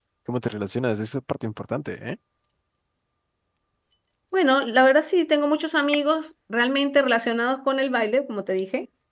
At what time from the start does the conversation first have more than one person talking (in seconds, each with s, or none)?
none